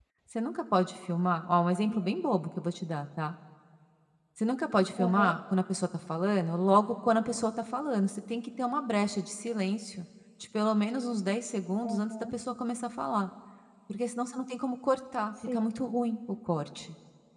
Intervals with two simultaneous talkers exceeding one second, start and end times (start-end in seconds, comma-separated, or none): none